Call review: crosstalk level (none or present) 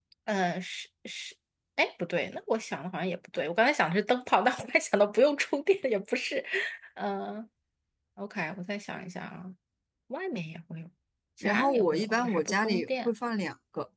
present